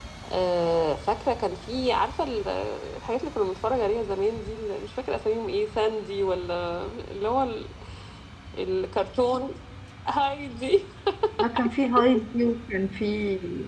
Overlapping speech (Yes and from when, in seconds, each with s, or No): No